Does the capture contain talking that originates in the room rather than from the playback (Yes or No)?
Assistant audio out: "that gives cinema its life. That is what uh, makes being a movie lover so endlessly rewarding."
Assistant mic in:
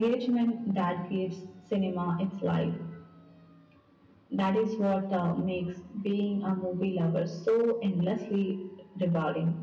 No